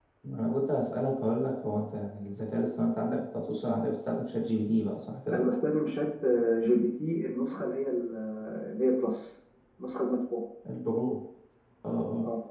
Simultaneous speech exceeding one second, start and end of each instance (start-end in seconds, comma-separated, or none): none